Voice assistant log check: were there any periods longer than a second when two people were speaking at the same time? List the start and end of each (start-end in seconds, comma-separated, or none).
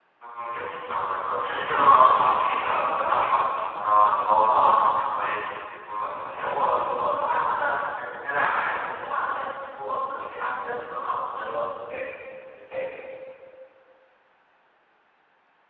6.3-7.7